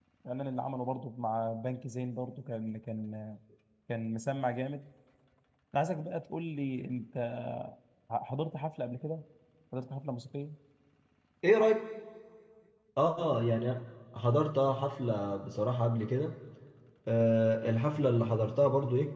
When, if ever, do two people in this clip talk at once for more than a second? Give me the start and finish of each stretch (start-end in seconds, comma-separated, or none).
none